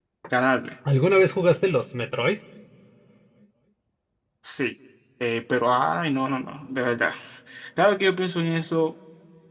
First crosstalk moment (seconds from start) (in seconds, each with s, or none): none